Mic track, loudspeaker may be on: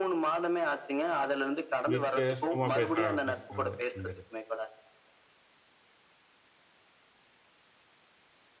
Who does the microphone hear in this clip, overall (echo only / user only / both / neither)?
both